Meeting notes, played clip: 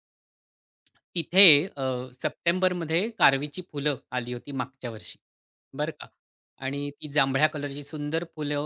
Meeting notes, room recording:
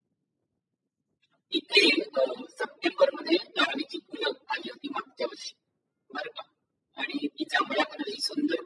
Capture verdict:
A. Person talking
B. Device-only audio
B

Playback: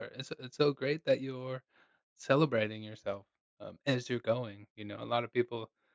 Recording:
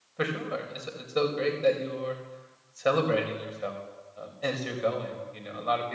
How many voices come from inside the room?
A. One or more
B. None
B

